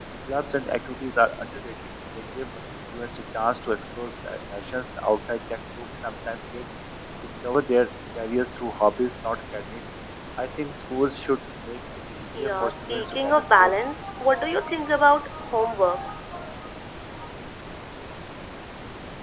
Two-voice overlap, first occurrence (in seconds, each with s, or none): 12.3 s